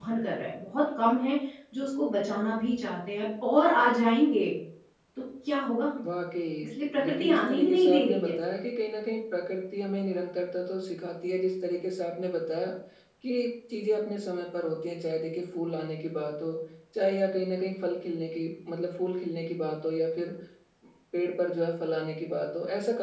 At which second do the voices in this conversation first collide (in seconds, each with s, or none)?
7.0 s